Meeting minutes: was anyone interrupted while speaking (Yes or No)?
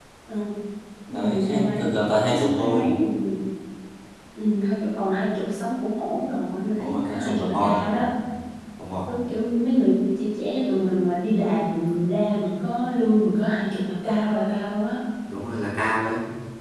Yes